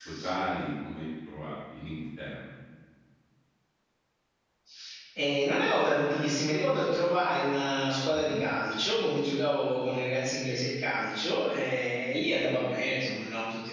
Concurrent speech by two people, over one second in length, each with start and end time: none

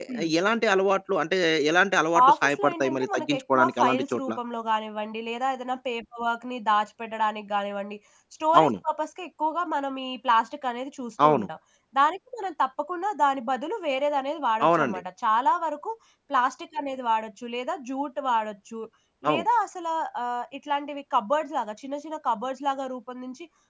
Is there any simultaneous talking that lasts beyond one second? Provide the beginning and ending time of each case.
2.3-4.3

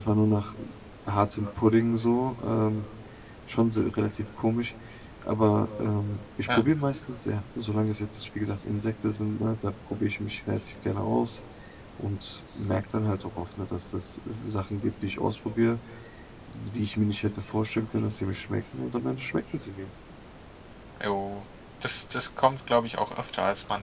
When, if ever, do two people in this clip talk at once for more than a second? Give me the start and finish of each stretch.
none

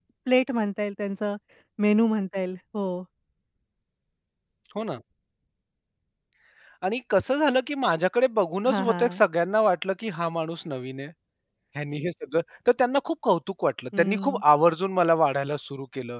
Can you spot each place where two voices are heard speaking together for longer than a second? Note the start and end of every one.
none

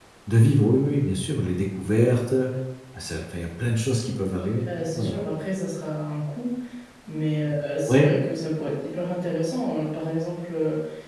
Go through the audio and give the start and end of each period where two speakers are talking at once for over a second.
none

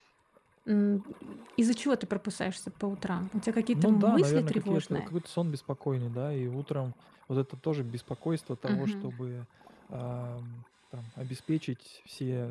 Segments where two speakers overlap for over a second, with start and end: 3.7-5.1

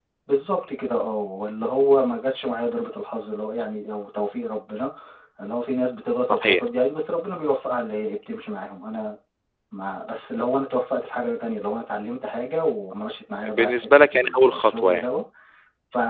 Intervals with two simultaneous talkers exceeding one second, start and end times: 13.4-15.1

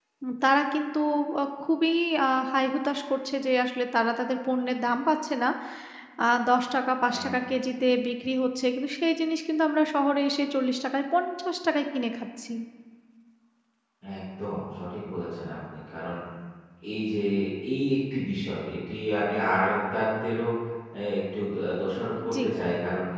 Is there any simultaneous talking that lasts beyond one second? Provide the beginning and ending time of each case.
none

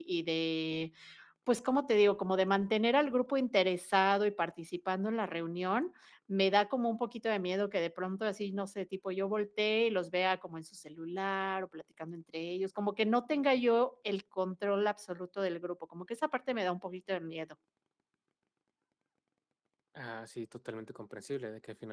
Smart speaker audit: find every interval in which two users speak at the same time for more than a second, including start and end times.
none

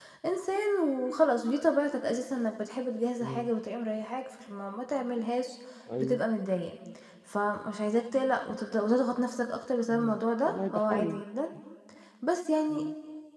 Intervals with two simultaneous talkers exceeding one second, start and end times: 9.9-11.2

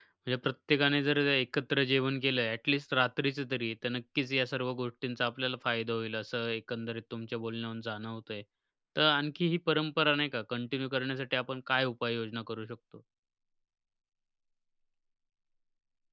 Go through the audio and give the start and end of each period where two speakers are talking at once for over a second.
none

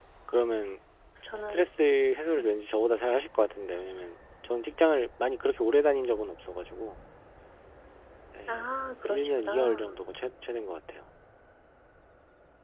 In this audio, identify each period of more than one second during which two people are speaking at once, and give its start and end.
8.5-10.0

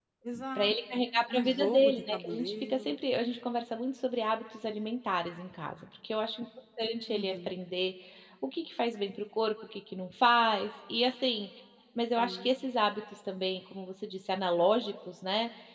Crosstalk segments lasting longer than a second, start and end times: 1.3-3.0

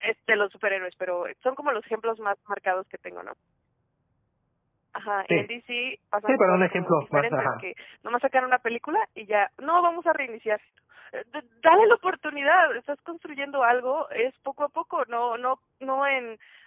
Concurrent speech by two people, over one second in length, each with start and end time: 6.3-7.6

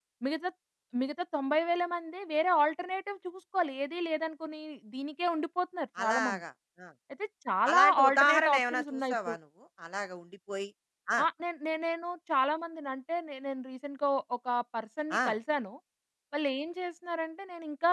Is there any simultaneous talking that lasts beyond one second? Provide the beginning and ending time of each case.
7.7-9.3

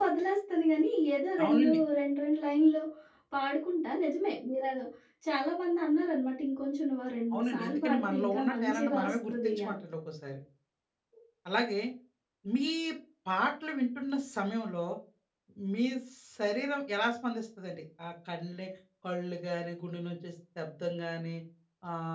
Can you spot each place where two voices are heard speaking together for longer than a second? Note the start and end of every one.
7.3-9.8

